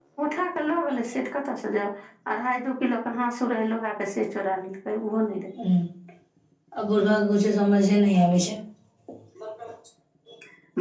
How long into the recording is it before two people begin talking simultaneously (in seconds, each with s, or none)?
none